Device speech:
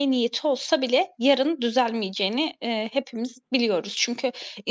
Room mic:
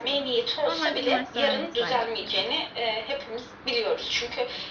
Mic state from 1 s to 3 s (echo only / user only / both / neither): both